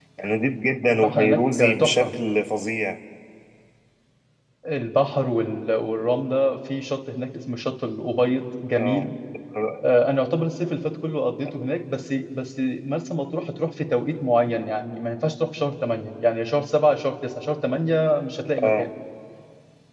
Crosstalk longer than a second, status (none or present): present